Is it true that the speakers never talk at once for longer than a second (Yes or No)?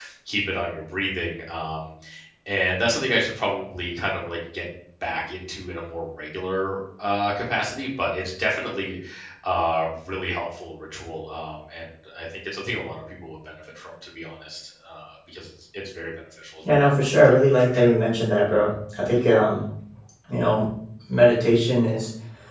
No